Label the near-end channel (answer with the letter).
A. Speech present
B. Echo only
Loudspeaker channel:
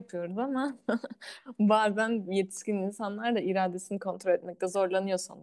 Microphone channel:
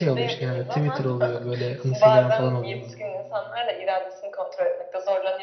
A